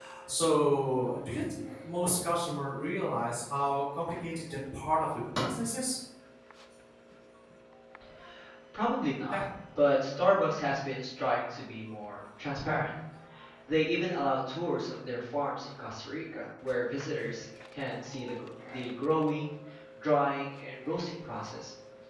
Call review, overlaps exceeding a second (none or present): none